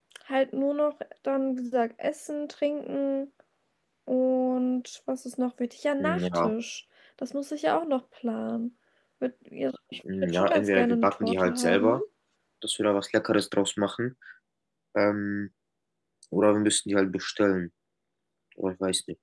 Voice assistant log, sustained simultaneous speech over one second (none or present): present